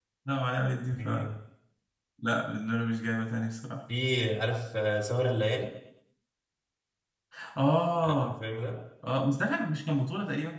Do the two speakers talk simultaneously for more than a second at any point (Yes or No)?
No